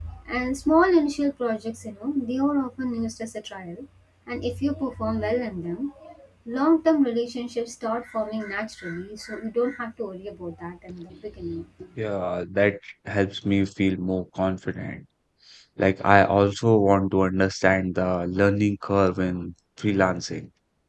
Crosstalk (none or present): none